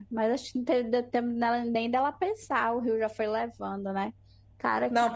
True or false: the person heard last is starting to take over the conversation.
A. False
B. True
B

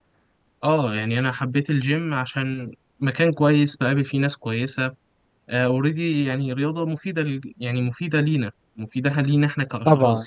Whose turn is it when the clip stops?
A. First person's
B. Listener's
B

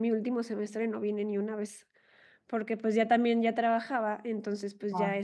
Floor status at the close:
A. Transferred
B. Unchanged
B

